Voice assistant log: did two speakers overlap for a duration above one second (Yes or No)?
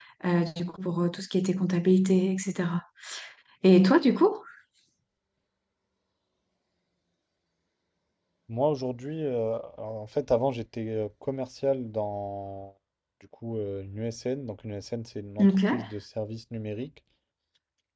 No